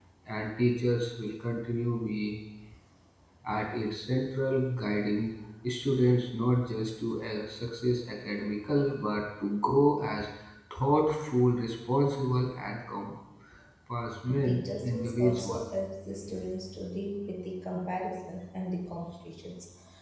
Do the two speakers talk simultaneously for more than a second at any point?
Yes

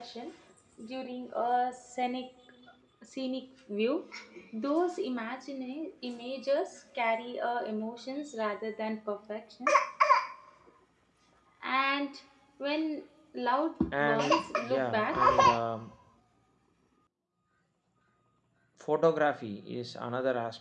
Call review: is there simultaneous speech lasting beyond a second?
Yes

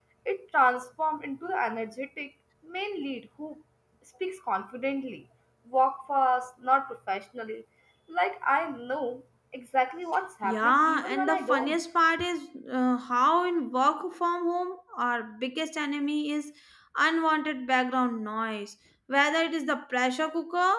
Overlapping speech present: Yes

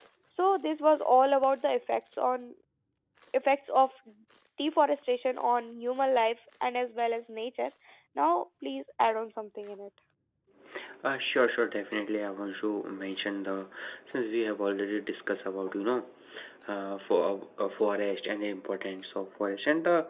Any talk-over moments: No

